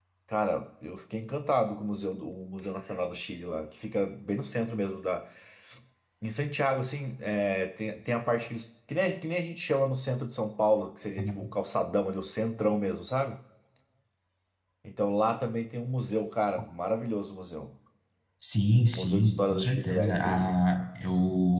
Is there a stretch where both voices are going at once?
Yes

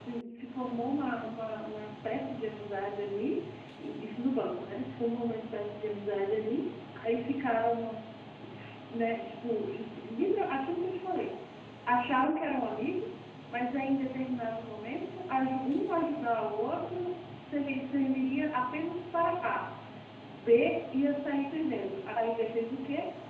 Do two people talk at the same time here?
No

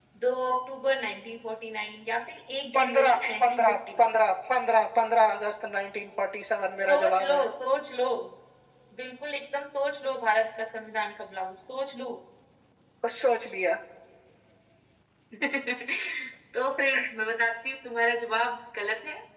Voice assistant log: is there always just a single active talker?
No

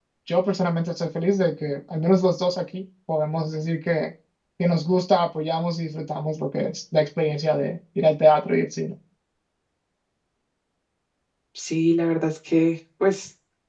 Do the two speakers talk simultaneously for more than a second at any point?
No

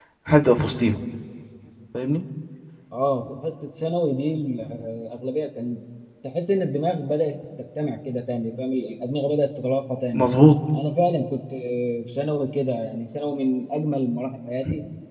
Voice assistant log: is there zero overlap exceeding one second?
Yes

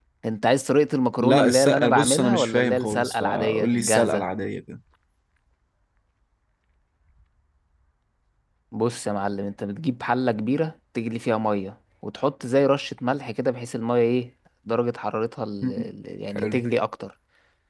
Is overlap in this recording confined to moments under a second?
No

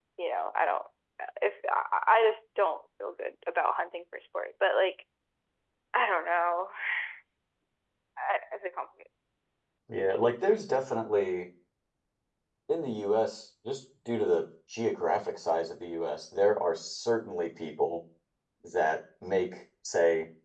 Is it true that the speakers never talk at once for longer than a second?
Yes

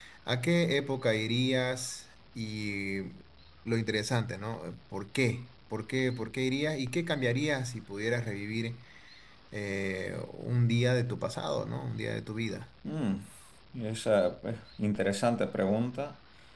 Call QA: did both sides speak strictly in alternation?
Yes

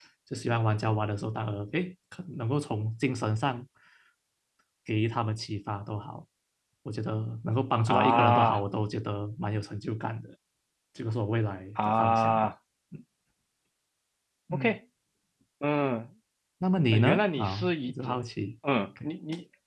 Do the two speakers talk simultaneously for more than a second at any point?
Yes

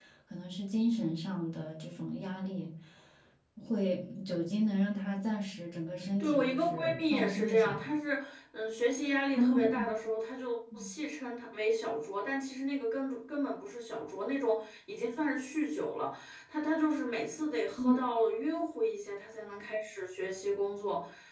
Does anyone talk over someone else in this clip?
Yes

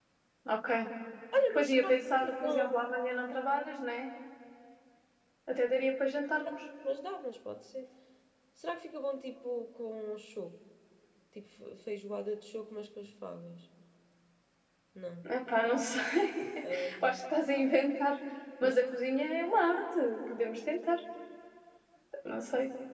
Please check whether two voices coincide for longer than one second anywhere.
Yes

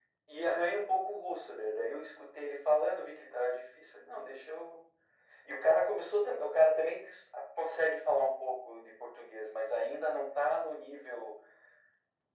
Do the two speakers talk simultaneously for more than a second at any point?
No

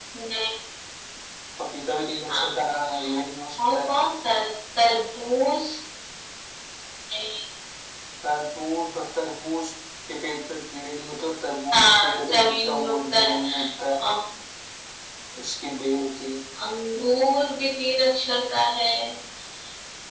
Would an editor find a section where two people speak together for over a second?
Yes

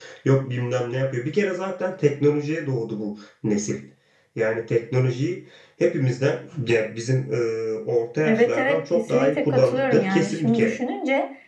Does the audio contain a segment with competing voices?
Yes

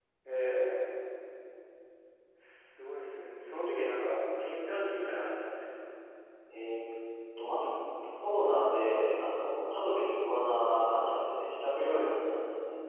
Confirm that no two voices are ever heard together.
Yes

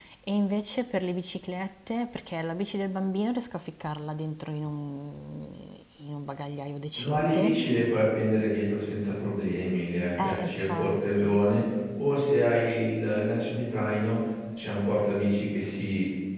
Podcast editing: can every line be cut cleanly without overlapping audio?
No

